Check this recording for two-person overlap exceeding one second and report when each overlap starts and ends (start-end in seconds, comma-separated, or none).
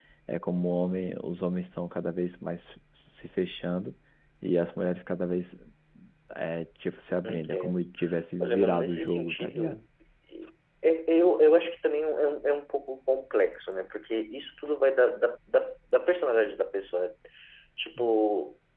8.4-9.8